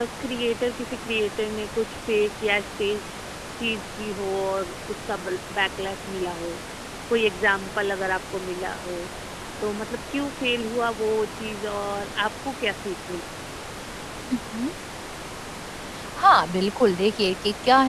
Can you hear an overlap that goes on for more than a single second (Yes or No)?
No